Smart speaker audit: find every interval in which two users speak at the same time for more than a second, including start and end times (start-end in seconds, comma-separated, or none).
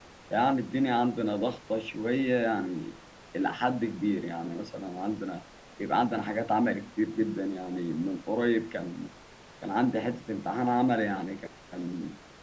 none